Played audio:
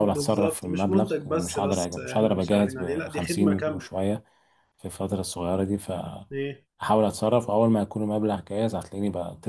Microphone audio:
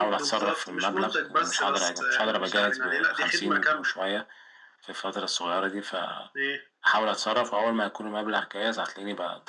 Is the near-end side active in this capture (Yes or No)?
No